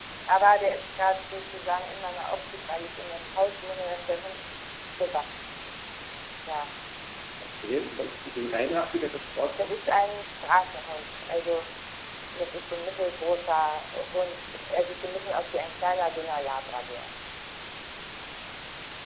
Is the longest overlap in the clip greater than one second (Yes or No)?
No